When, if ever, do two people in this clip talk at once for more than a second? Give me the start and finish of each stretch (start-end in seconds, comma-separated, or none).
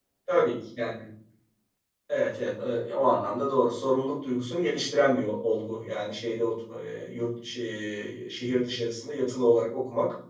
none